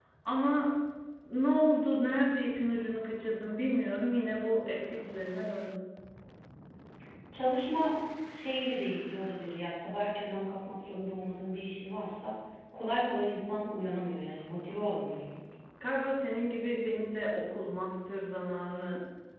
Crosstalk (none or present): none